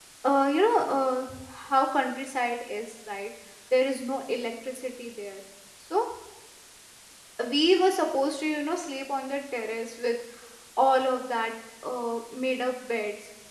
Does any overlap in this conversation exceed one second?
No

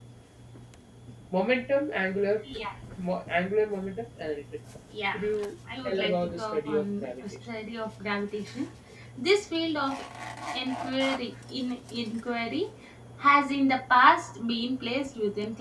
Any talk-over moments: Yes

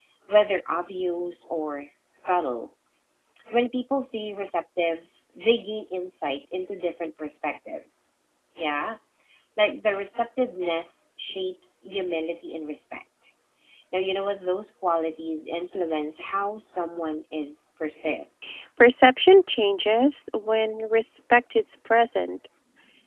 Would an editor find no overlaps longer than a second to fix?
Yes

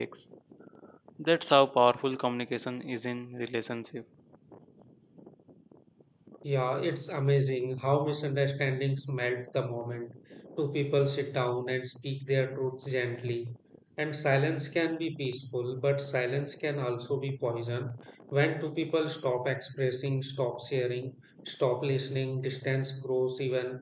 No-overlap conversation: Yes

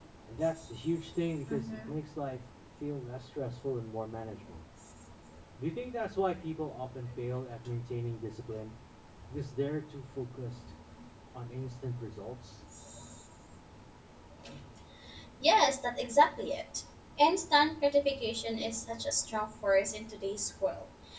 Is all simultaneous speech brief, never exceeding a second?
Yes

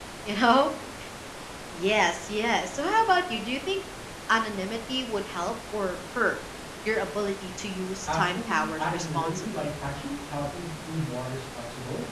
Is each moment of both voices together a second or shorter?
No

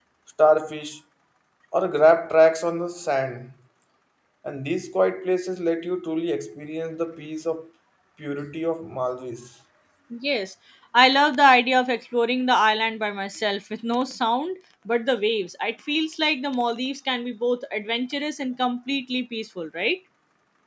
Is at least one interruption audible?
No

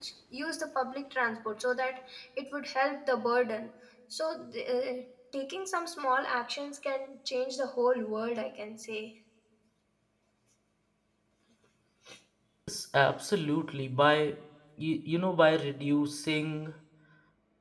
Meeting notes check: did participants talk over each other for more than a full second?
No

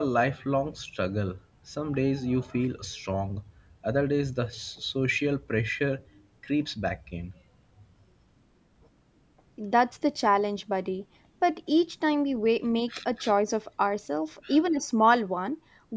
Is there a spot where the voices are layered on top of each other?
No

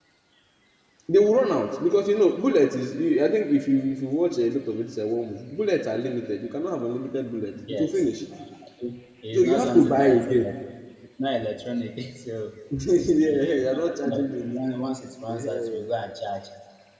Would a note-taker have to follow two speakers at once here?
Yes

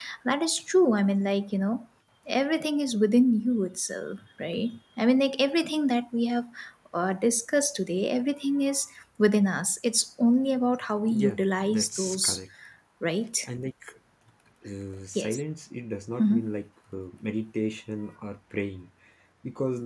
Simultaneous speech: Yes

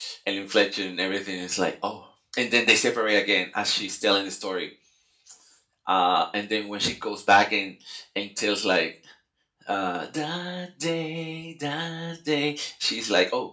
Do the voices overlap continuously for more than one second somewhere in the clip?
No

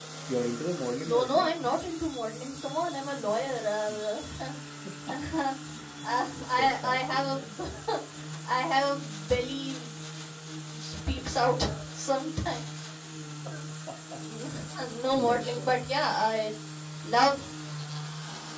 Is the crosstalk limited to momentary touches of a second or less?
No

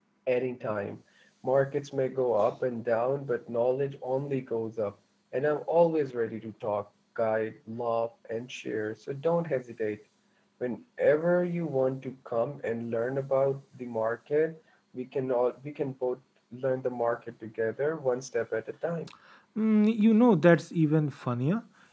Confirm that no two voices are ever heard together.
Yes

